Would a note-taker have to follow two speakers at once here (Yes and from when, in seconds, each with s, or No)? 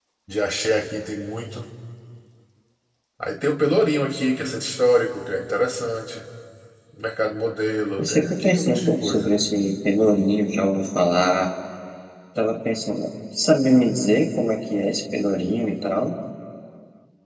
Yes, from 8.0 s